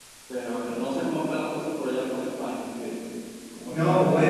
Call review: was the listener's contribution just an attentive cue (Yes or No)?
No